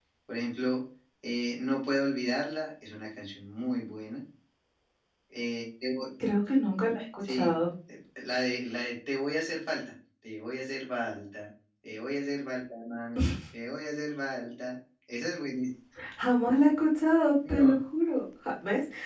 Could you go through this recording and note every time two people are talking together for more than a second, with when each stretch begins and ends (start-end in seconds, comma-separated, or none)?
none